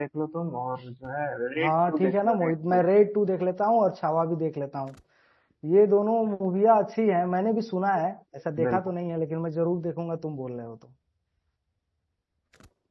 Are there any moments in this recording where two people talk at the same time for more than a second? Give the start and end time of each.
1.6-2.8

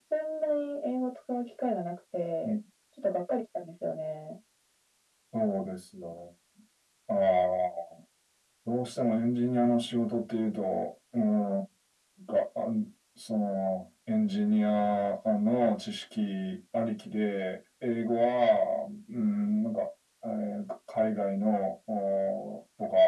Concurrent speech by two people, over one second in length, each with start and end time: none

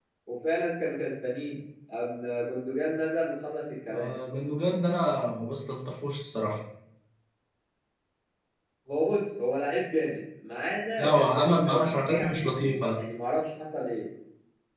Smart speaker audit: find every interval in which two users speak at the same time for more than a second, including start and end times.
11.0-13.0

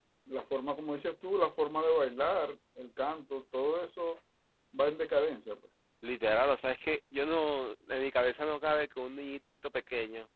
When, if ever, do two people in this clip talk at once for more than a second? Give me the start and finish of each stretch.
none

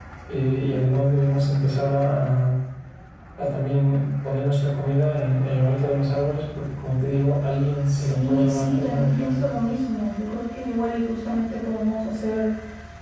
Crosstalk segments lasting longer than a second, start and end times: 7.9-9.4

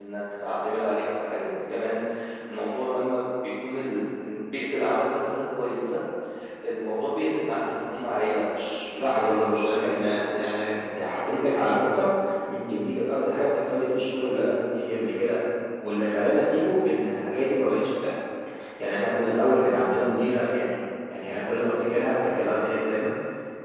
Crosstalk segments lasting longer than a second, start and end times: 9.0-10.6

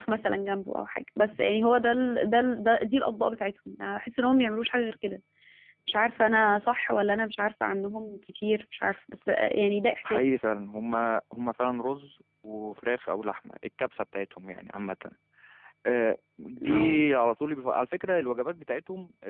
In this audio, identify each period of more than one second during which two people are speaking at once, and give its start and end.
none

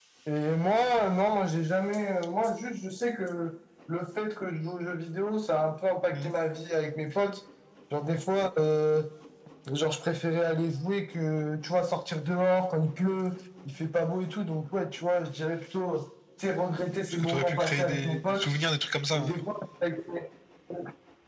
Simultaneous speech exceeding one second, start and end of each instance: 17.2-18.5

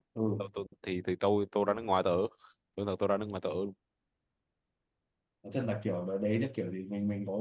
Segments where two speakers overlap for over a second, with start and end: none

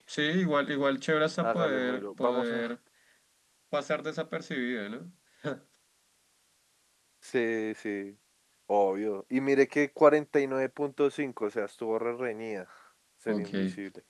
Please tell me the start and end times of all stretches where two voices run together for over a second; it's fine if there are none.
1.4-2.6

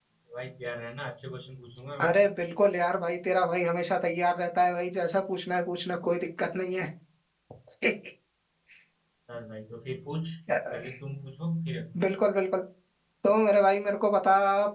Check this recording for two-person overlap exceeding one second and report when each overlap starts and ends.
none

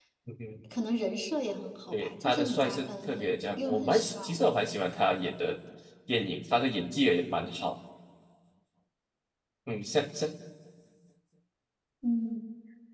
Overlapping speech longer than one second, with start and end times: 1.9-4.2

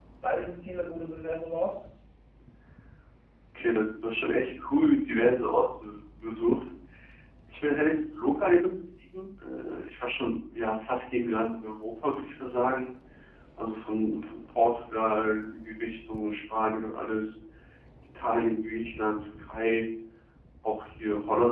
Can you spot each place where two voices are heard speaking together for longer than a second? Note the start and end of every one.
none

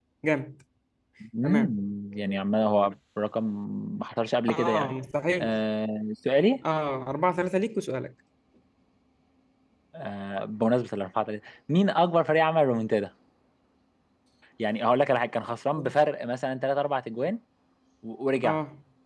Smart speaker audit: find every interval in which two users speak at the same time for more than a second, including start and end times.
none

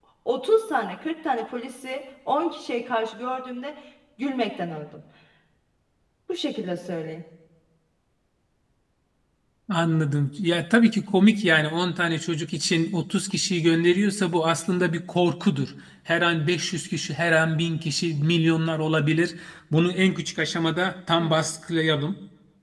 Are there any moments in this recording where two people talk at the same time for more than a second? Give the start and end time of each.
none

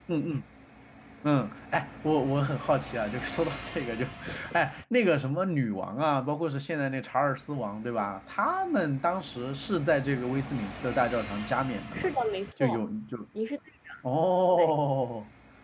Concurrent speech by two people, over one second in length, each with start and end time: none

